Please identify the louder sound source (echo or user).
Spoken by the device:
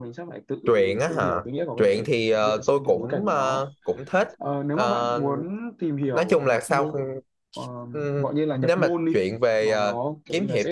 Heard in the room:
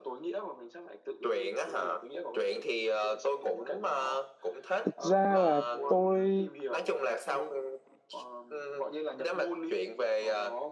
user